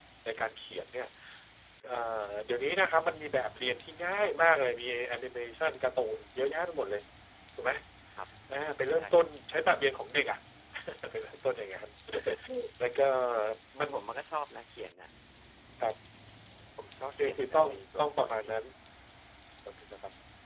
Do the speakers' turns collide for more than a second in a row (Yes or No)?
Yes